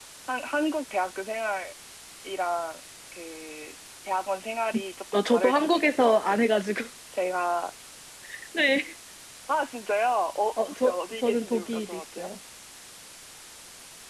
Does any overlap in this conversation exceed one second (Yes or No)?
Yes